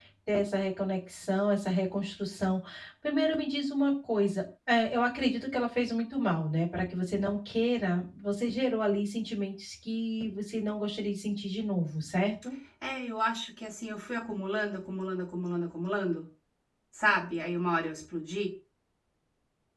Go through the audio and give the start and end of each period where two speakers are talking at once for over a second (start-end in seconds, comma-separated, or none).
none